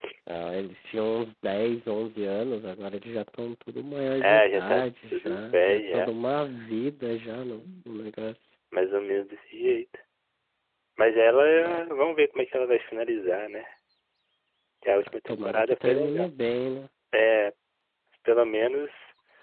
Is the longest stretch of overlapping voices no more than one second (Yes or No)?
No